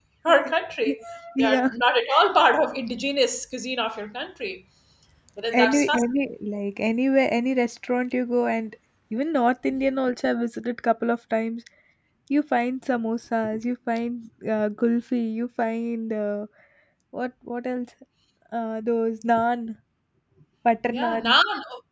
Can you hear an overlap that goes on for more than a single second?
No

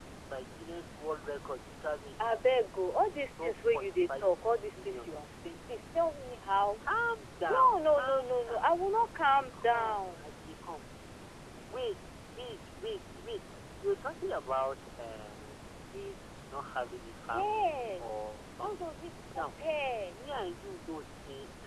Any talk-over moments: Yes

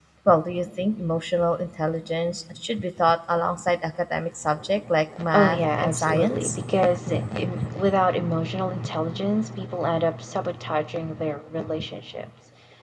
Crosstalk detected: Yes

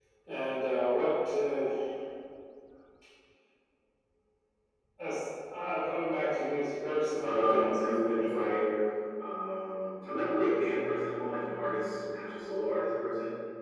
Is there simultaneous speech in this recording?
Yes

